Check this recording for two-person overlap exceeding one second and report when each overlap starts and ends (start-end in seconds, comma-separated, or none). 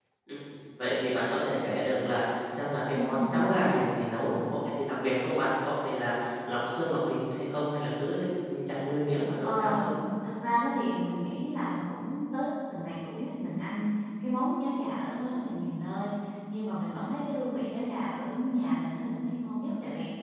none